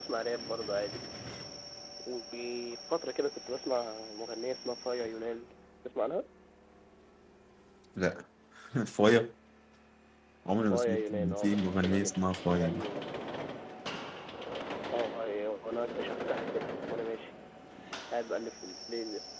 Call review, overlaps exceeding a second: present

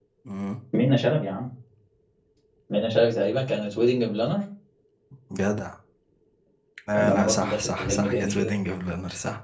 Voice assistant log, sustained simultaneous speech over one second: present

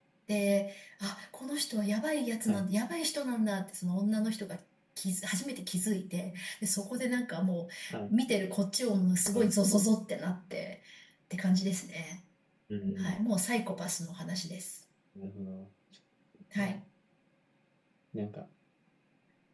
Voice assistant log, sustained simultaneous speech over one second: none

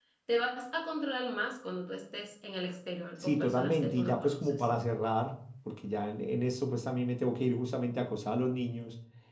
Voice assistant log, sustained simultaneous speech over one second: present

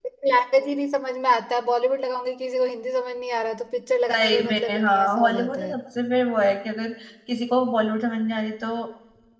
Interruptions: present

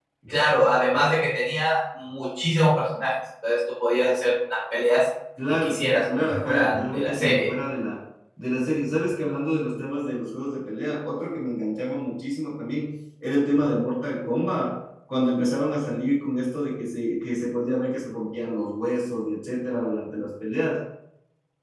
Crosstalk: present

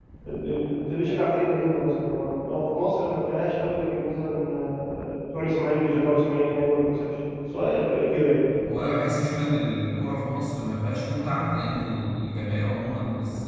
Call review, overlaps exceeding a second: none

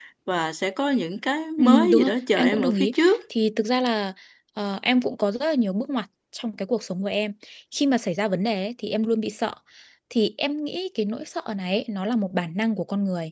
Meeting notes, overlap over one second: present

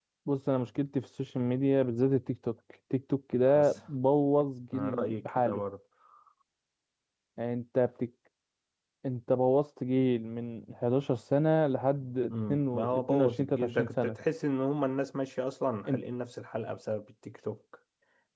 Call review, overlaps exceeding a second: present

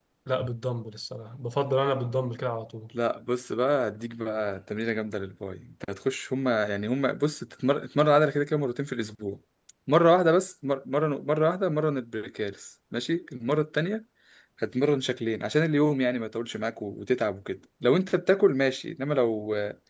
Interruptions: none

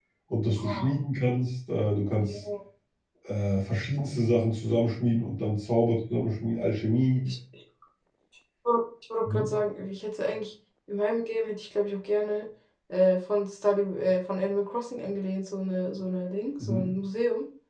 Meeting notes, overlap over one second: none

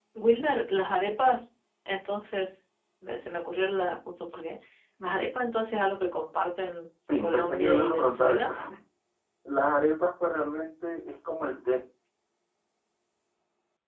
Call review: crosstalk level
present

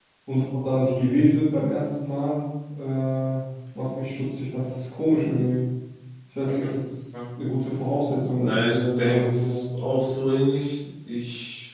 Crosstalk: present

